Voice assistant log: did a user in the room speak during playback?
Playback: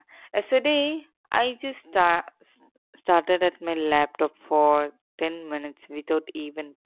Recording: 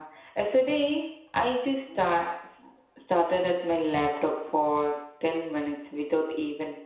No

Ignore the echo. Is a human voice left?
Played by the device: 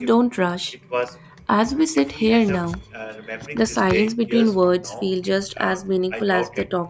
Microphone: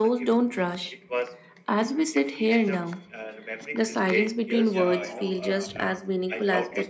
Yes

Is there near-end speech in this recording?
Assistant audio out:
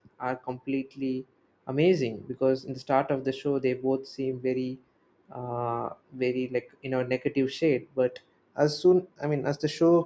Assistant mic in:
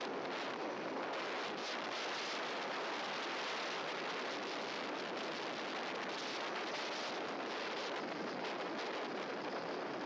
No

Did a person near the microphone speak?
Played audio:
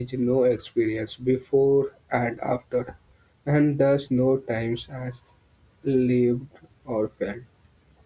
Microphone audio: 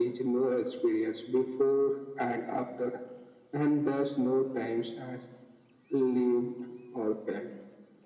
No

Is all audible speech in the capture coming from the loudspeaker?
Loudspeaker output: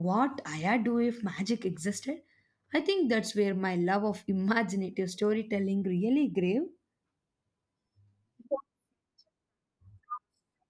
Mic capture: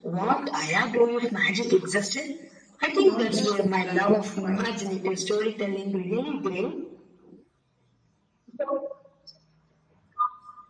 No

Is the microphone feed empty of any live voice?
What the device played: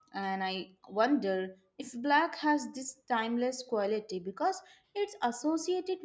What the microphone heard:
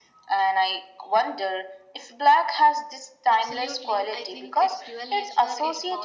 No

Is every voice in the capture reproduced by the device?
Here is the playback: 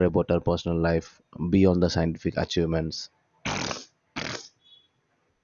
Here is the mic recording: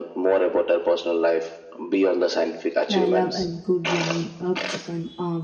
No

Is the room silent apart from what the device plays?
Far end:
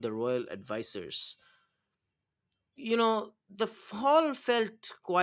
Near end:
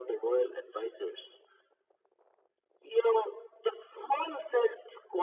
Yes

